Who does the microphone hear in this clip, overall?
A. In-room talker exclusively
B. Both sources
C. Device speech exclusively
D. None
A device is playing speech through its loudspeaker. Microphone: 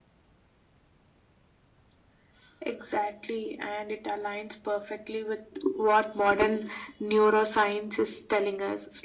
C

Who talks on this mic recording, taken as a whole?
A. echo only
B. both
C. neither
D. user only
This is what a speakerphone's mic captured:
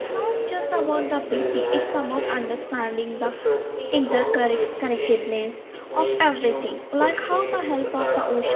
B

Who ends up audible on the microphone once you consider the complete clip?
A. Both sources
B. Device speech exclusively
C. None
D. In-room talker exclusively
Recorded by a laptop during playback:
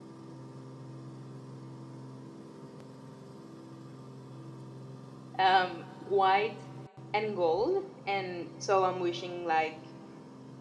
D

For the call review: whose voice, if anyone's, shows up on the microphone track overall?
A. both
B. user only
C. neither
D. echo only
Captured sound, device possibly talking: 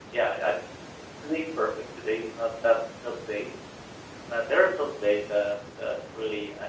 D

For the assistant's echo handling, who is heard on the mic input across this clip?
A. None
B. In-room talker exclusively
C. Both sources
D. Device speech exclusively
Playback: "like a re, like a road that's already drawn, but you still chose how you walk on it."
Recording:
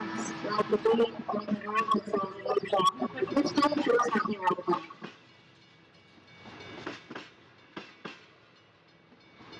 D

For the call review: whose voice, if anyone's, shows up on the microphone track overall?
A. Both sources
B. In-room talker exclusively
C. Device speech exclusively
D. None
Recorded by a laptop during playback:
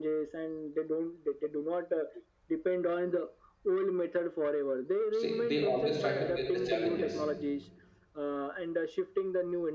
A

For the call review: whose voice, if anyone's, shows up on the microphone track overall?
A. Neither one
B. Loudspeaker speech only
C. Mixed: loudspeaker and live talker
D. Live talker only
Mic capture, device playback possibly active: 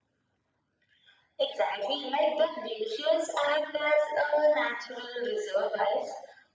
B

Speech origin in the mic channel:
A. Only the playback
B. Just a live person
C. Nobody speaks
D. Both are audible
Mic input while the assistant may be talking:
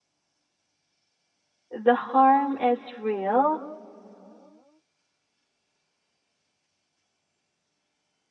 B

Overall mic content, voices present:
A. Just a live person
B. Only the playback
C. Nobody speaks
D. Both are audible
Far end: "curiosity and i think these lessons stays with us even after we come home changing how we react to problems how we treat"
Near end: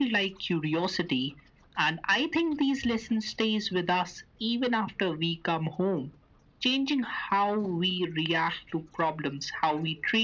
B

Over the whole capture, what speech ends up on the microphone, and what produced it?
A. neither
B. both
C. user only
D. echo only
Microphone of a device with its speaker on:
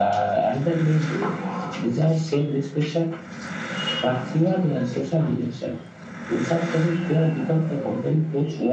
D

